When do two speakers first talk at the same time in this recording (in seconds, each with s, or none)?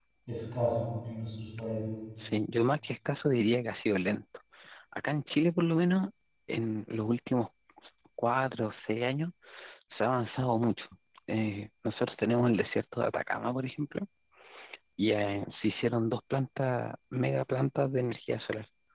none